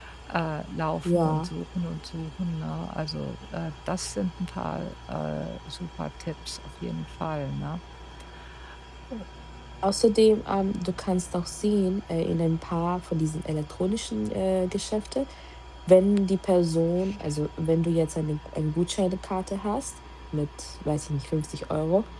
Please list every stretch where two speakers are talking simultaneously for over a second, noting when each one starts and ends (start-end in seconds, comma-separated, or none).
none